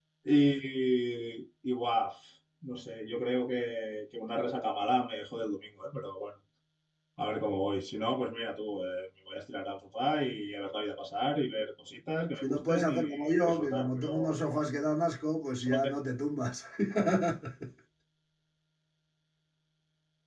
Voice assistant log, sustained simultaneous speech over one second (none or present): present